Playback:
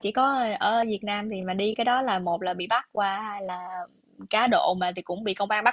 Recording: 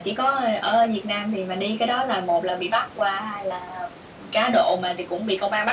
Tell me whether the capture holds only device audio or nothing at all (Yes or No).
Yes